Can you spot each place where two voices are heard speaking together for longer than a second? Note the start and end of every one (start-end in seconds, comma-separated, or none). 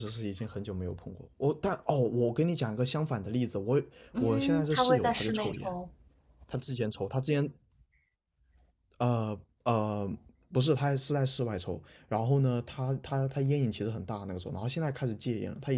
4.2-5.7